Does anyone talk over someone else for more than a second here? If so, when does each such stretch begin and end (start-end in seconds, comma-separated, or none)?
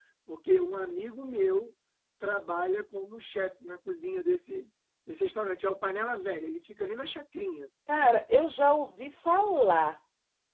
none